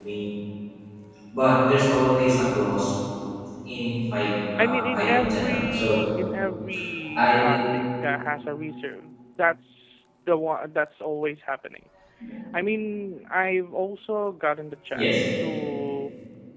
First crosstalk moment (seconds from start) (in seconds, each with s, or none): 4.6 s